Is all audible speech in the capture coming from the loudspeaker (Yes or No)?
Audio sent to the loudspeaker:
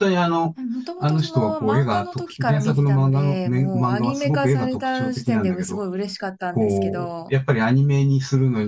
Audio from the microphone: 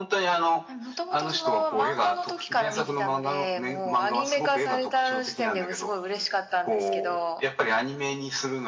Yes